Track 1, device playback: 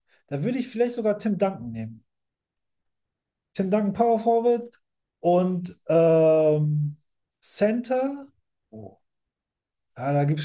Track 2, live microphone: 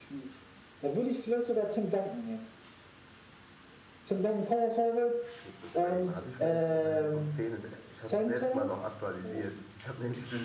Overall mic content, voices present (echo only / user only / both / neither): both